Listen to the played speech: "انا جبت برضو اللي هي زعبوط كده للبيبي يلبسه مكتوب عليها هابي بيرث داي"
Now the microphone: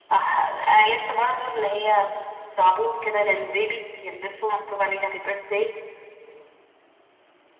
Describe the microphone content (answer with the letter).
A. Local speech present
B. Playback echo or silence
B